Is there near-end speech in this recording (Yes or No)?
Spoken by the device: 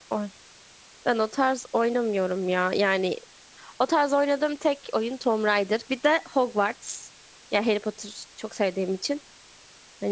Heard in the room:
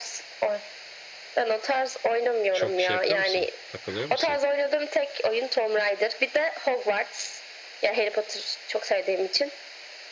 Yes